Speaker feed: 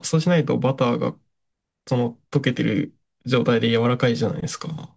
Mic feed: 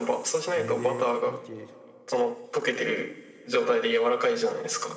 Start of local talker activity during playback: 0.5 s

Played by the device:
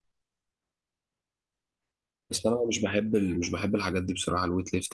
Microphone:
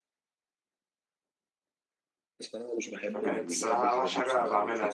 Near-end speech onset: 3.1 s

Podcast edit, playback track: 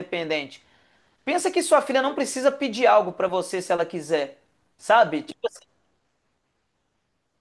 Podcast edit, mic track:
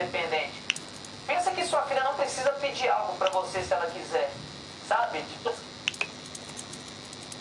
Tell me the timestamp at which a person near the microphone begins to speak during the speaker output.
none

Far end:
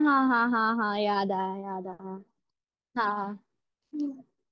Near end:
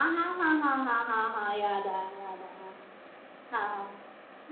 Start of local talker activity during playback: none

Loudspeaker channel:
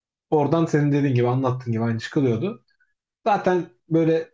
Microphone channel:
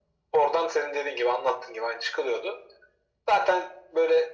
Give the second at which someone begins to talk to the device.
none

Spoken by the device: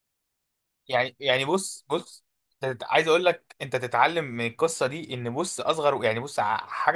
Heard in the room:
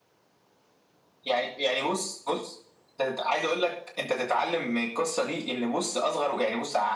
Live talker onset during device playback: none

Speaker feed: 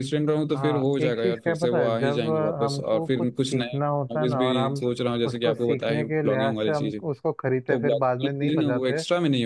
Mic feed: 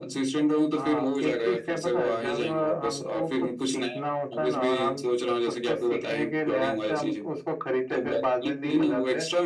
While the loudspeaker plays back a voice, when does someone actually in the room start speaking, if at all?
none

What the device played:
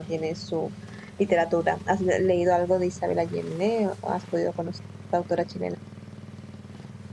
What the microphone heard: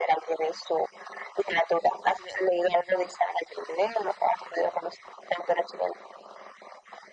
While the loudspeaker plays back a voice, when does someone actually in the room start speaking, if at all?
none

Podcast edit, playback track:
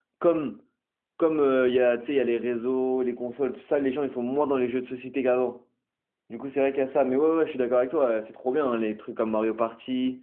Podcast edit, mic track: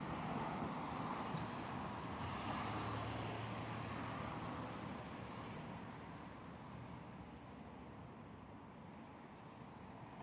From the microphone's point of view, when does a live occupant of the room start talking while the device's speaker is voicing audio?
none

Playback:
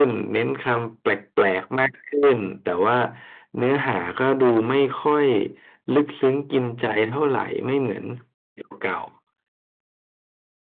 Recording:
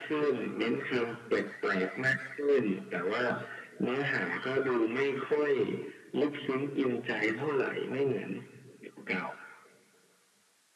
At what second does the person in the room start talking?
none

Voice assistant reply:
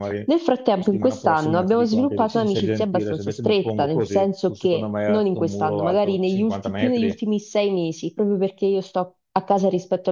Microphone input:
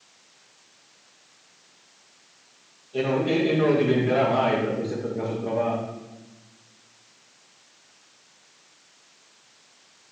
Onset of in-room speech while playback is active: 3.0 s

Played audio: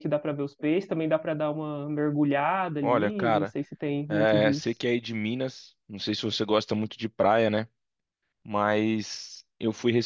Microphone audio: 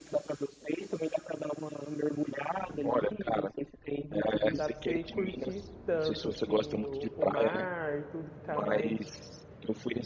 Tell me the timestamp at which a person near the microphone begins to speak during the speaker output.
4.4 s

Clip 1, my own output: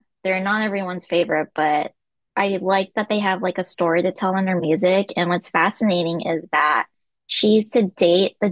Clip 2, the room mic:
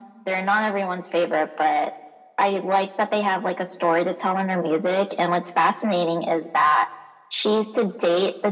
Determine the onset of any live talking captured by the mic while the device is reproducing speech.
none

